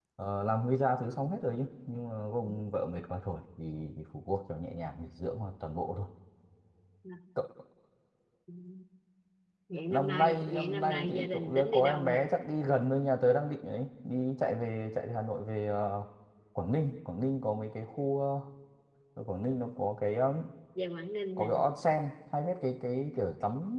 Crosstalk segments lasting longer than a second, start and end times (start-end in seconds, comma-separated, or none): 9.9-12.2